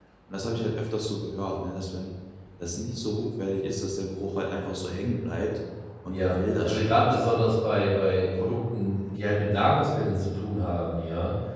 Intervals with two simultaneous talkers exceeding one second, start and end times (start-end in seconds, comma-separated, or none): 6.1-7.5